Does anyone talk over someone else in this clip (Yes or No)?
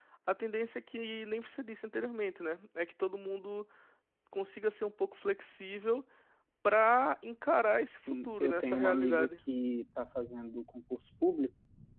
Yes